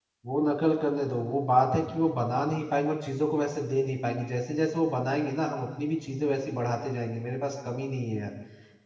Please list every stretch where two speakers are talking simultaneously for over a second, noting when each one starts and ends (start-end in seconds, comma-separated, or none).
none